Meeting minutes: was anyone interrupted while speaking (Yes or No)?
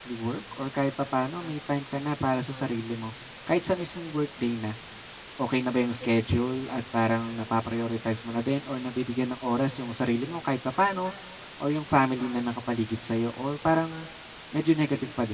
No